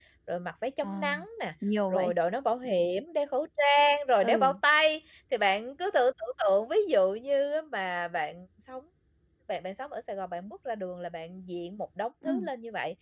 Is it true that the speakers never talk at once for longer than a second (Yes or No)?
Yes